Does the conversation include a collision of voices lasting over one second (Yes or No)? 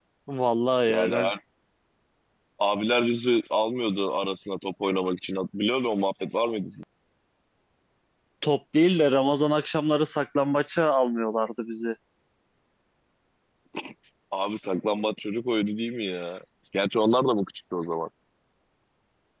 No